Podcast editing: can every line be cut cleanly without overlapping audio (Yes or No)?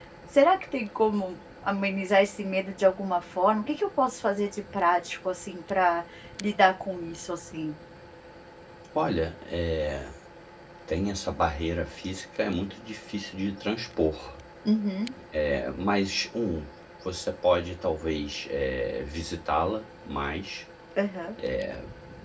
Yes